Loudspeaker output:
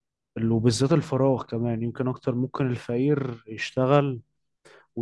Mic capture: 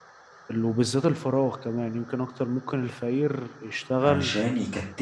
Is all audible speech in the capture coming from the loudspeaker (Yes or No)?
No